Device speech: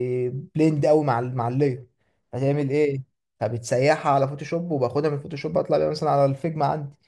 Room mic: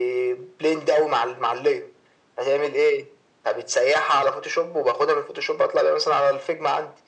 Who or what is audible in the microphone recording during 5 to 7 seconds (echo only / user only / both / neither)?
echo only